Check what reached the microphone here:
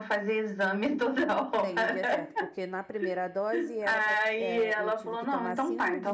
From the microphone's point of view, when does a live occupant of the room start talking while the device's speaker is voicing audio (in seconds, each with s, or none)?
1.6 s